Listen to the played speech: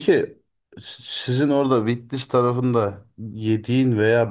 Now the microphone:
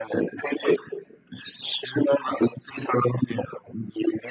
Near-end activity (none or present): none